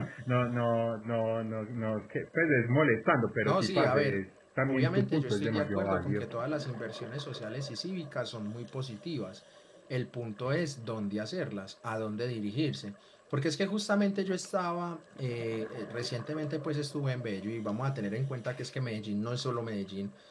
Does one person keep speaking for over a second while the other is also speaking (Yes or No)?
Yes